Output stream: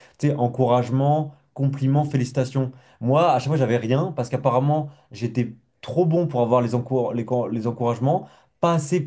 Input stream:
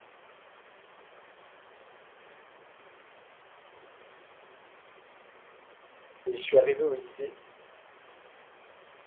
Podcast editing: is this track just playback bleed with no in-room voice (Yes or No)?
No